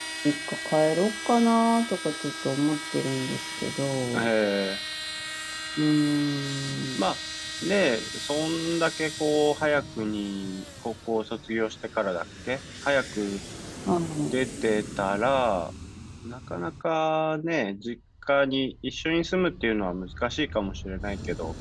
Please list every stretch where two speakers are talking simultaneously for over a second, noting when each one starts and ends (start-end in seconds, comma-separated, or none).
none